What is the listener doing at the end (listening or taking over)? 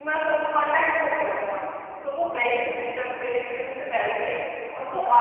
listening